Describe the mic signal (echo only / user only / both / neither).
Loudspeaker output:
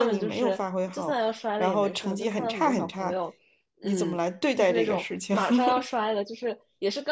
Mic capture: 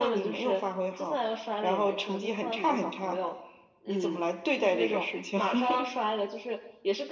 echo only